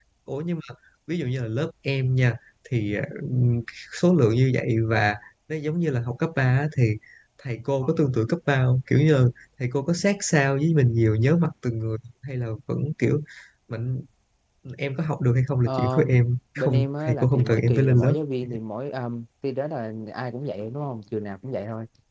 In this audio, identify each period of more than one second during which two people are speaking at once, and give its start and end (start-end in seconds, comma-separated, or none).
16.6-18.1